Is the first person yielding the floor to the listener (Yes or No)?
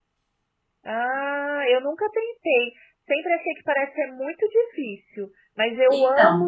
No